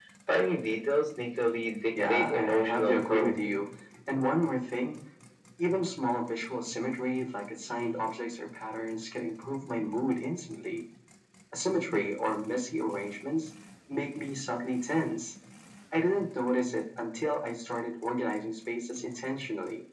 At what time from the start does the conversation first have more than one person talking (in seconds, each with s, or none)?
2.0 s